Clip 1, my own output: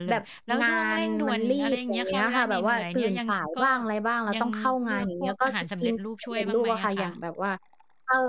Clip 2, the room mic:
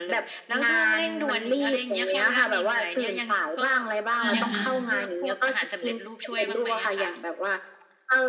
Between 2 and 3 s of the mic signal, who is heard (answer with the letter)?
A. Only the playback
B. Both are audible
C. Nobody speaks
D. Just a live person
A